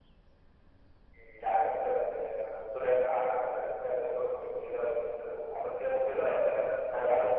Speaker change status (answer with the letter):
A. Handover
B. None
A